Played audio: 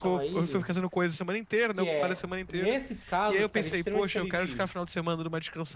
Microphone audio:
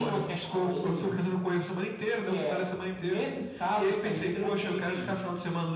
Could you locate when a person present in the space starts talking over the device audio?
none

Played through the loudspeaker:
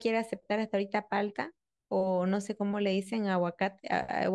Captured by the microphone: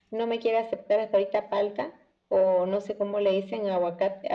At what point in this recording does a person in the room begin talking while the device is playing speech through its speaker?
none

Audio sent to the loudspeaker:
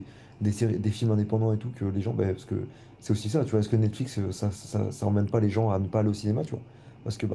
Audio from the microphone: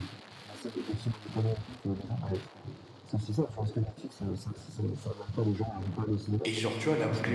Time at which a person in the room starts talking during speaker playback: 6.4 s

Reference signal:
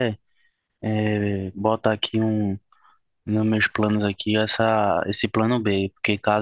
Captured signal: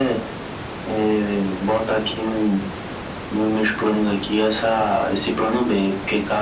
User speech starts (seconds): none

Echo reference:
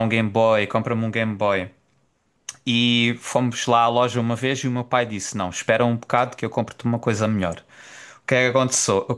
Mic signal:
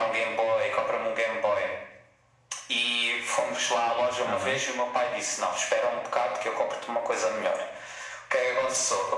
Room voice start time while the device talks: 4.2 s

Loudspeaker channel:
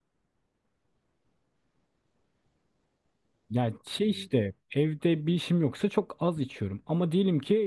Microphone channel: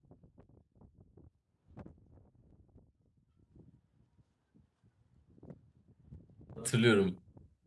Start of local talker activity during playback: 6.6 s

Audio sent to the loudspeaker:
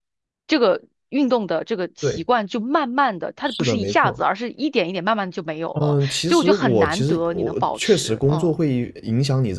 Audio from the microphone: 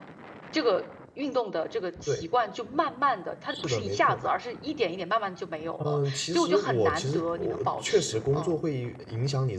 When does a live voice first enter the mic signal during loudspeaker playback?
none

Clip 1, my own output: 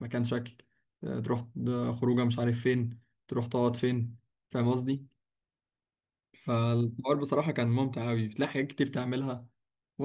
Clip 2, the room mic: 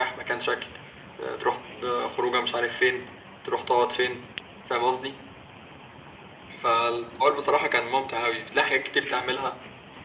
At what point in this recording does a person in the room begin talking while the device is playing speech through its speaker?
none

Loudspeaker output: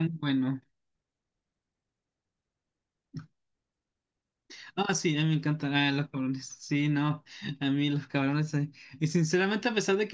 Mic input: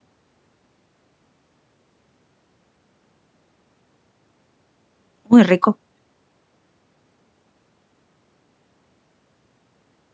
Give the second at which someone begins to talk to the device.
5.3 s

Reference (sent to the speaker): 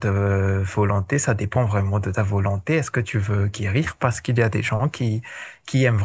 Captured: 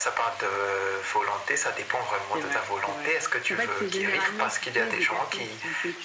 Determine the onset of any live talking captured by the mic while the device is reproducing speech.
2.3 s

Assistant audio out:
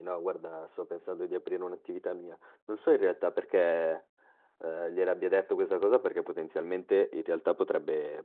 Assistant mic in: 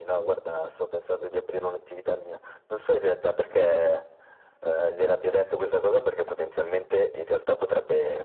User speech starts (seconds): none

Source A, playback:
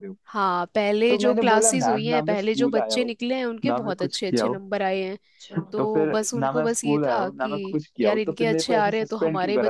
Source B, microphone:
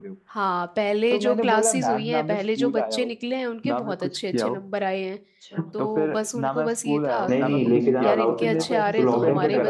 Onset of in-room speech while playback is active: 7.3 s

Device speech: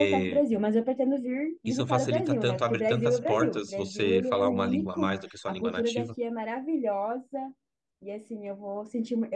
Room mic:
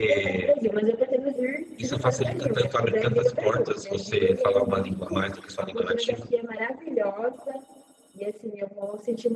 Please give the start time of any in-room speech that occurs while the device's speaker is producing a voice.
none

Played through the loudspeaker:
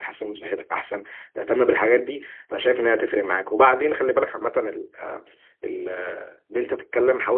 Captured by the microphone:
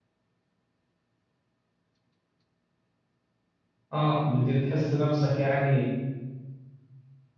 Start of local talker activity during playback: 3.9 s

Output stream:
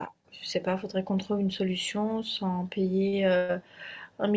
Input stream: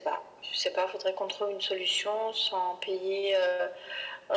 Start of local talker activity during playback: none

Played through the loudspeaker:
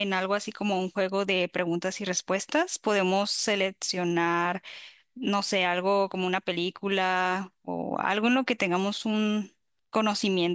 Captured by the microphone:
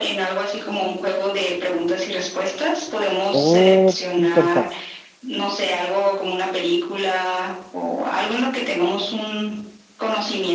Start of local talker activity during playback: 3.3 s

